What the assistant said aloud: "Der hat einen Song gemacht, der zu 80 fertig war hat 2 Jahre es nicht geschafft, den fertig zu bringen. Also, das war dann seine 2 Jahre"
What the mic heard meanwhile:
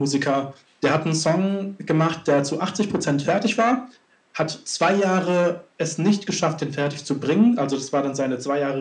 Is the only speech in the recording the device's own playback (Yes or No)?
Yes